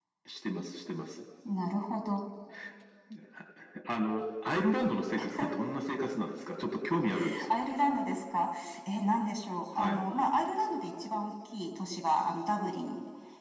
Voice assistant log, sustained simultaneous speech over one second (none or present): none